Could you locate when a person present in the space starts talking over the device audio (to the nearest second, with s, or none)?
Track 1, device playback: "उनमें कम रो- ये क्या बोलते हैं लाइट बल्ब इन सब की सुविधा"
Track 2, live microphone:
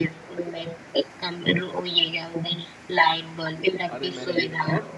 4 s